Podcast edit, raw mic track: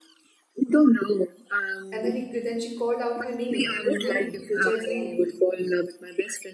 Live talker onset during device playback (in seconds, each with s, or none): 1.9 s